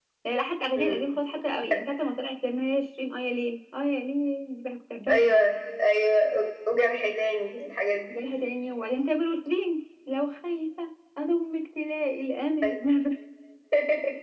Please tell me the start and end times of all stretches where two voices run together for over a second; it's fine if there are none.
none

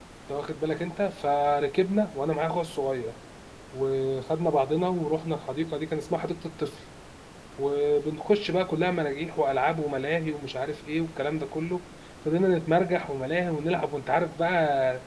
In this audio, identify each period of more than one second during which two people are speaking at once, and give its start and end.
none

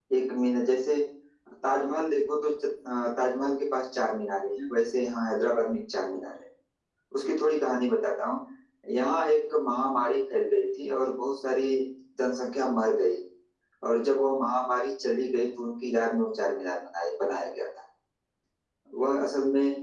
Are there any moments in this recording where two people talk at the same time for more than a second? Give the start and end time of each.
none

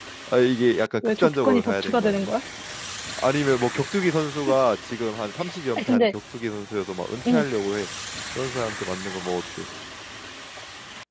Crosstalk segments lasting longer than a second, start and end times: 1.0-2.3

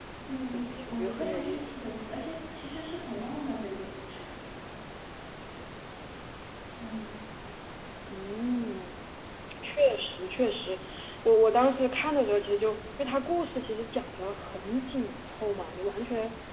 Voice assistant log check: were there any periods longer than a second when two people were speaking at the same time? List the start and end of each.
0.5-1.7

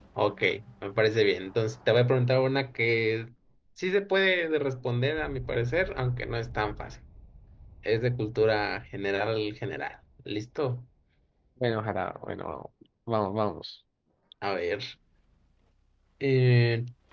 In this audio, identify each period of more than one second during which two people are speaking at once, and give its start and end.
none

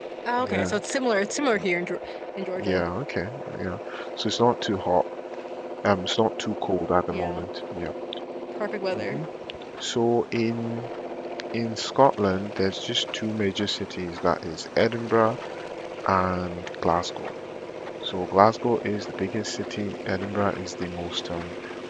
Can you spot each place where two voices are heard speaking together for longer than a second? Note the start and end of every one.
none

